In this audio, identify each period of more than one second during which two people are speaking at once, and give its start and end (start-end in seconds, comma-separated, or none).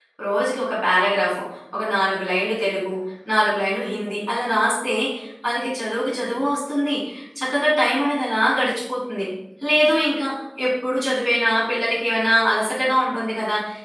none